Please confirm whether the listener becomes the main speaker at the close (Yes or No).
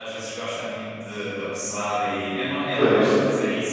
No